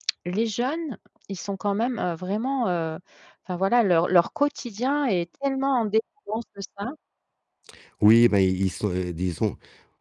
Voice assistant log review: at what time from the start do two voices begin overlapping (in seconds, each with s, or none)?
none